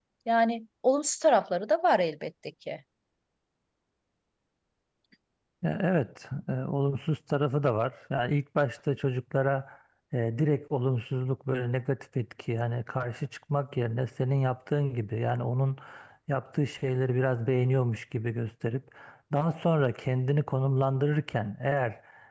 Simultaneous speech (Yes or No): No